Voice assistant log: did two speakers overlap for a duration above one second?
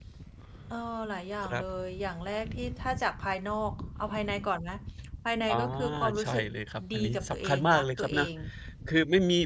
Yes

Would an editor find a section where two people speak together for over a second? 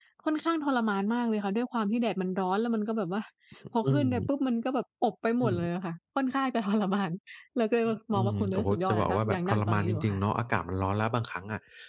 Yes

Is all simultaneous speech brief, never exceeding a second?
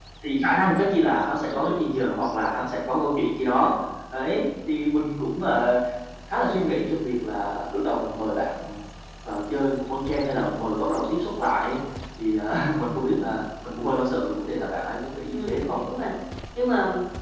Yes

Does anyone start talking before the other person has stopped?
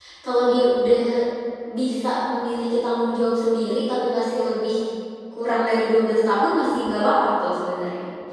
No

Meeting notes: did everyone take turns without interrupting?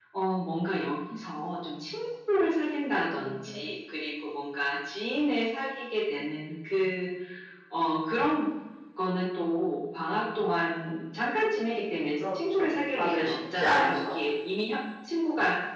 No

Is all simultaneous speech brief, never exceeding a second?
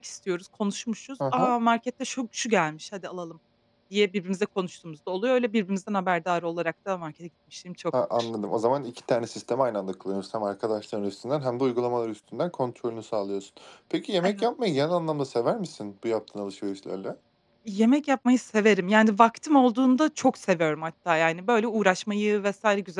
Yes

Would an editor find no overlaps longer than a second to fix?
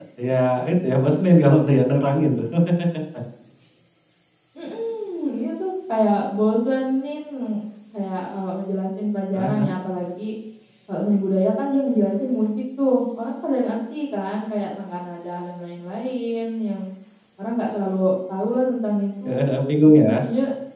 Yes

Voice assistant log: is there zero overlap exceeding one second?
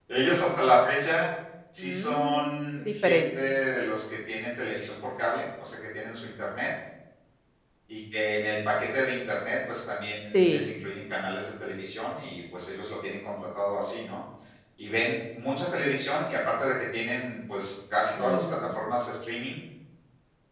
No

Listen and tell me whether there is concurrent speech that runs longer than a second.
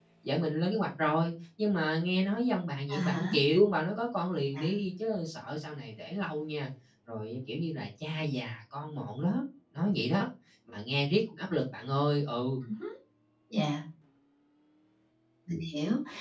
No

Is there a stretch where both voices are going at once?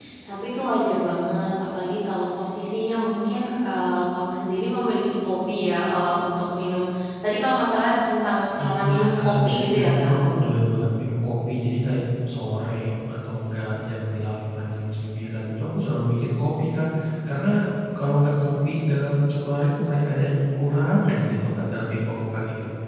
Yes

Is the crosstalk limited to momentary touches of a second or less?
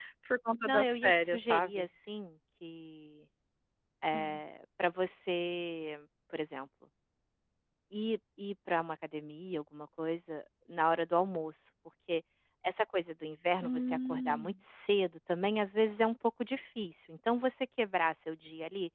No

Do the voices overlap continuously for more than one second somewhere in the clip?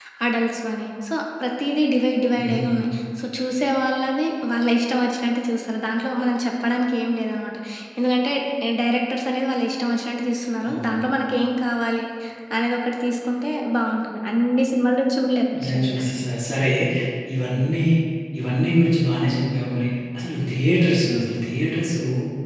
No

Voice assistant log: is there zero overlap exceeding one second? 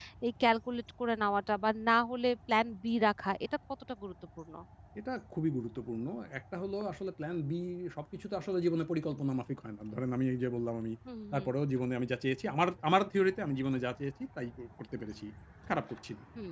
Yes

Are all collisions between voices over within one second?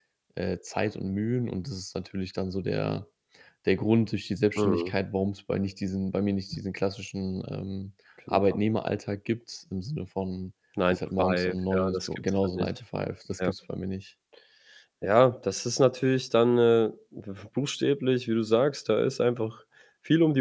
No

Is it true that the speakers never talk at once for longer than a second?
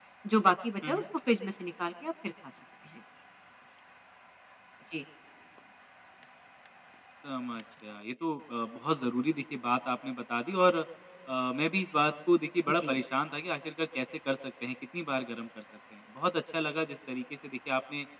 Yes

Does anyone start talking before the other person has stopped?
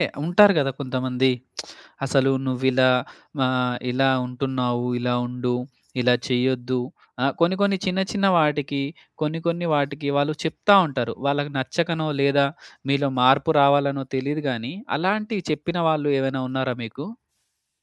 No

